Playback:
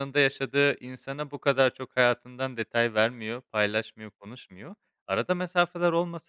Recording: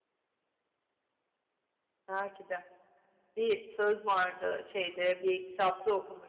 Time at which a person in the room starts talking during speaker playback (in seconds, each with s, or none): 2.1 s